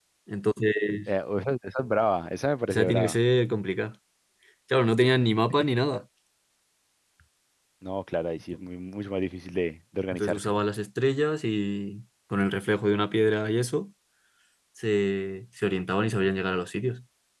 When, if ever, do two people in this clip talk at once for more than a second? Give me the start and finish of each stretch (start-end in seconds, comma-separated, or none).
none